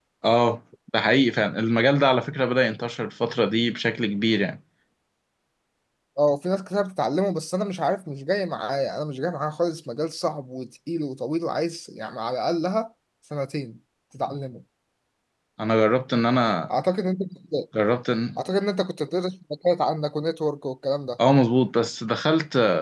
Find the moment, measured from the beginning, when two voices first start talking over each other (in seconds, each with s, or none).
none